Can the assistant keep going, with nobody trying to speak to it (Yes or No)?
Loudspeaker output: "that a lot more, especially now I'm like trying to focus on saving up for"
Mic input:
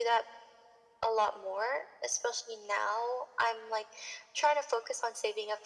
Yes